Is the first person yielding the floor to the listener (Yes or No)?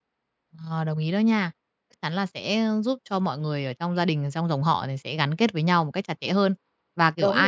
No